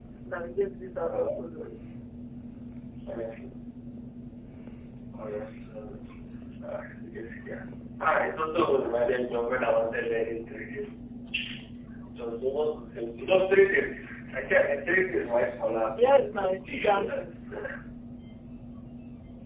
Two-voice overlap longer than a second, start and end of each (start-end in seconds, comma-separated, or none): 16.0-17.2